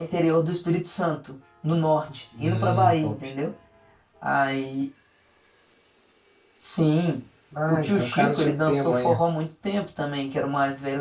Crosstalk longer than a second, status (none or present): present